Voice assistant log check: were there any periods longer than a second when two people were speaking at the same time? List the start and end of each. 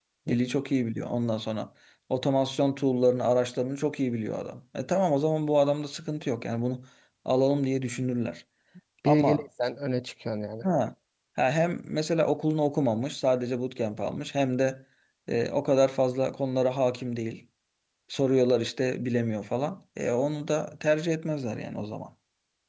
none

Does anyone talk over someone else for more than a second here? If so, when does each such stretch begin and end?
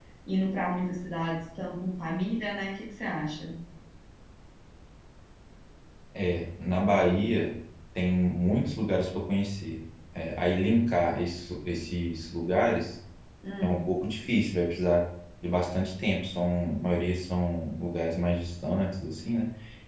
none

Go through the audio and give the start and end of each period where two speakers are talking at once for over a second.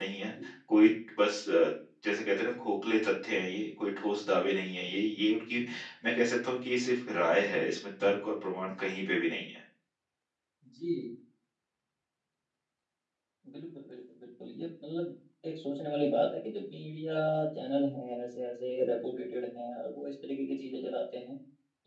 none

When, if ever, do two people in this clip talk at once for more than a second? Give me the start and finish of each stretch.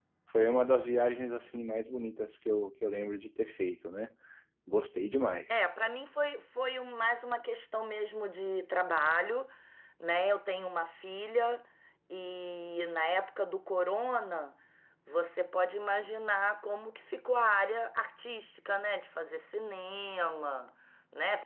none

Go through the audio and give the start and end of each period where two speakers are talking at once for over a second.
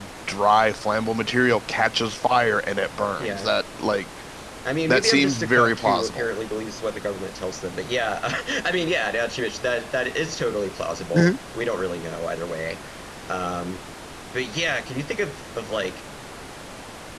4.9-6.3

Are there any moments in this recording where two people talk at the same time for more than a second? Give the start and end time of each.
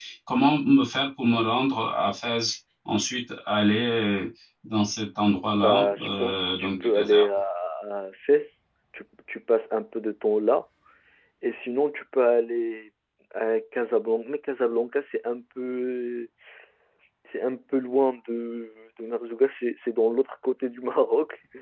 5.5-7.3

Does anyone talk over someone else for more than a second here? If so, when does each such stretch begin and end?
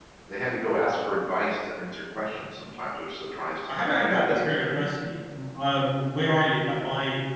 3.7-4.9

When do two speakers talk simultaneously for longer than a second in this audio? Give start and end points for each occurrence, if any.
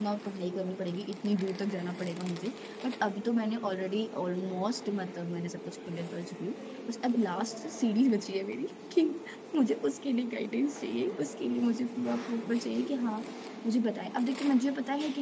none

